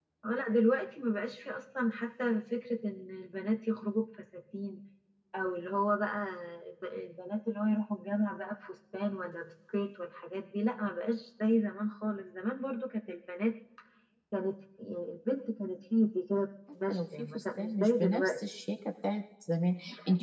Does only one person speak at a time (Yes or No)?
No